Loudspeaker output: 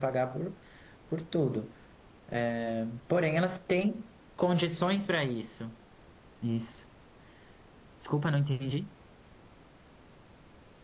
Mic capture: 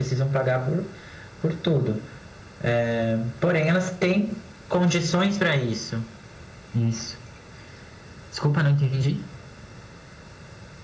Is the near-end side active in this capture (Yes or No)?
No